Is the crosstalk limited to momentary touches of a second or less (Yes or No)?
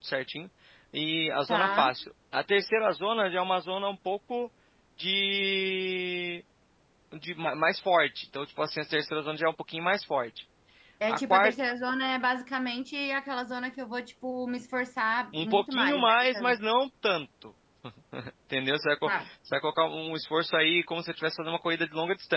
No